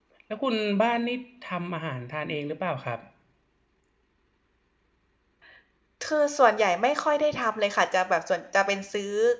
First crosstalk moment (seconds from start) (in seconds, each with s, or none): none